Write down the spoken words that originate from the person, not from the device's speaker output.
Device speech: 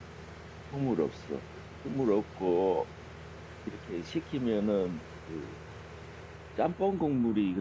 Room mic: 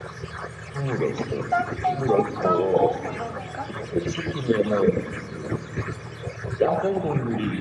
짬뽕밥? 짬뽕? 뭐 이런 건가?

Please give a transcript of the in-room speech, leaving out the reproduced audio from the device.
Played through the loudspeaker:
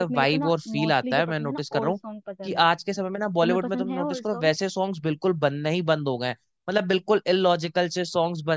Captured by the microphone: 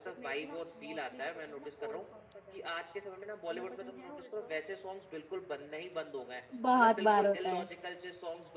बहुत बार होता है

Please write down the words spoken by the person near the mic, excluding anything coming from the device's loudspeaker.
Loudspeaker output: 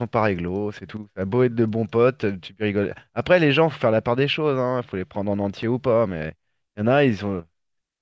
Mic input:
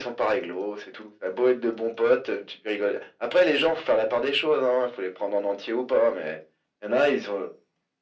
none

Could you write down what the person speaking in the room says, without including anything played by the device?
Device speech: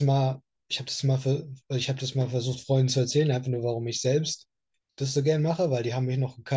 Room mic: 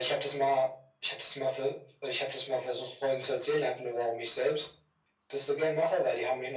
none

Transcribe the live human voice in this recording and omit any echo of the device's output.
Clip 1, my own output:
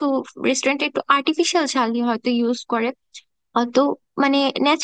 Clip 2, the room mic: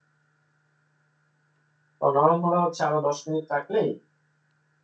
তো নরম হলে হচ্ছে আরো দশ মিনিট রাখলেই

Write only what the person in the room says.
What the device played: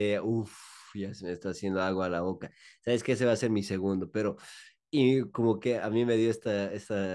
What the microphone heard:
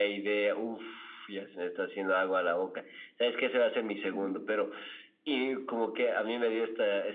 Ujú,

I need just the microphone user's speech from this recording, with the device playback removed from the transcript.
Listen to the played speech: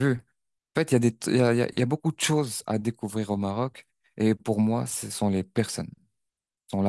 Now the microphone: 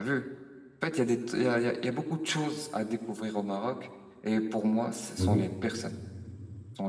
Mhm.

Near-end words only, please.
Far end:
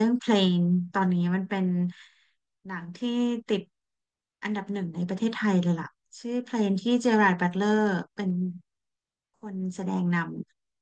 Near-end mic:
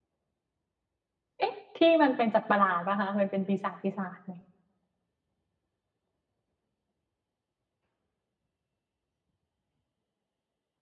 เอ๊ะที่มันเป็นสัตว์ประหลาดป่ะคะมันเป็นปีศาจปีศาจไหม

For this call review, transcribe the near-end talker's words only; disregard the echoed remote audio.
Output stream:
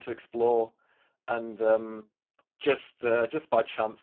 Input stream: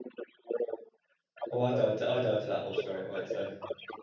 oh, I died to I died to that boss straight away. So

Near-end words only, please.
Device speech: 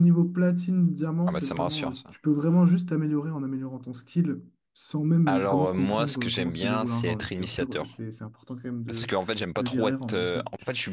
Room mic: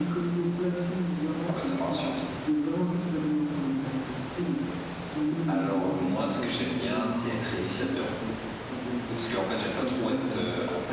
none

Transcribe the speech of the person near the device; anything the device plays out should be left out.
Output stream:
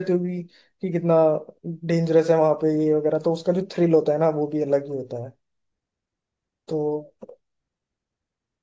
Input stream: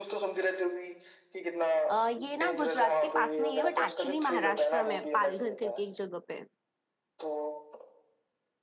अ, ये ना गुजरात के पास में ही है बट एक्चुअली महाराष्ट्र में है, पालघर करके एक जगह पे है।

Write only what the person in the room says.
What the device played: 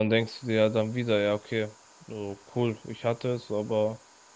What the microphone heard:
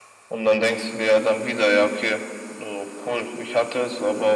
none

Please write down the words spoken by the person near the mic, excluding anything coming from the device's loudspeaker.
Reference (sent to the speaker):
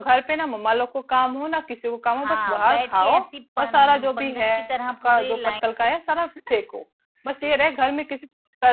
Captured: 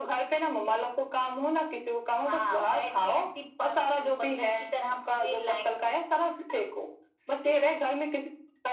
none

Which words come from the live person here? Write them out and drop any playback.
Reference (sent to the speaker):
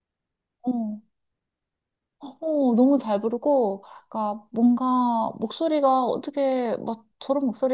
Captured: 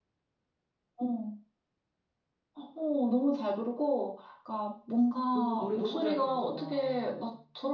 너무, 노래 너무 잘 부르잖아.

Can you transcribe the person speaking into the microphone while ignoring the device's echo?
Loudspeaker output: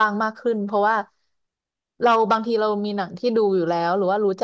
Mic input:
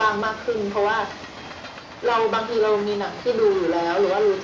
none

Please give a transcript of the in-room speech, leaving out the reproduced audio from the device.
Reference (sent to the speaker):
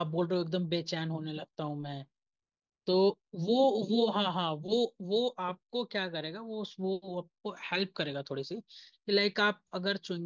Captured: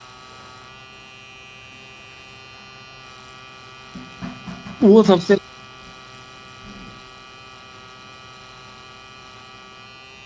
वो सबसे

